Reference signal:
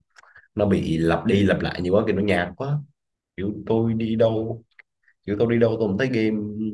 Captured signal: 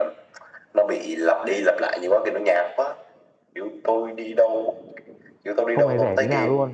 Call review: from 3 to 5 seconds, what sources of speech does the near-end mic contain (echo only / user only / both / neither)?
echo only